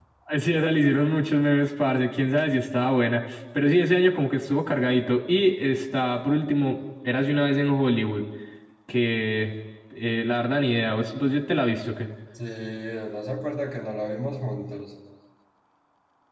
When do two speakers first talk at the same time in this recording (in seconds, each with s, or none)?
none